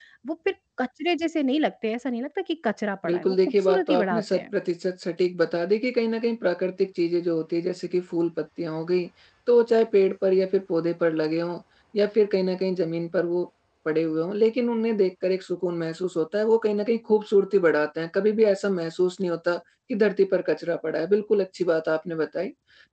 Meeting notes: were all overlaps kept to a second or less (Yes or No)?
No